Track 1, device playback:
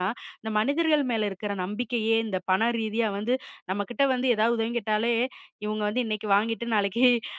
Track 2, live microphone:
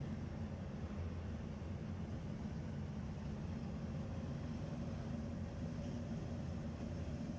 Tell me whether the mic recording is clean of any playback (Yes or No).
Yes